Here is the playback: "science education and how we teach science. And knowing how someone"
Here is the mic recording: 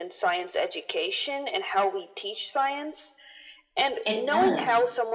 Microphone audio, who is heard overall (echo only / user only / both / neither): both